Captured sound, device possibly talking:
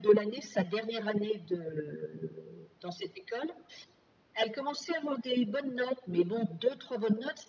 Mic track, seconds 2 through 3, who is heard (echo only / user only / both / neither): echo only